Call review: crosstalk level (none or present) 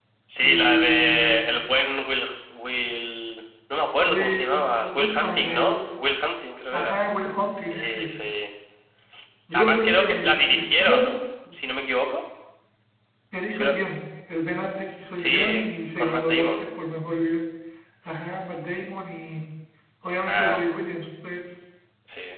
present